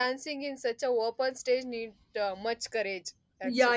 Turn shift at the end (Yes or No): Yes